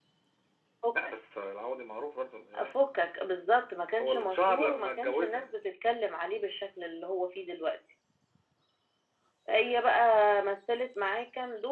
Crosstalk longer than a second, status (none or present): present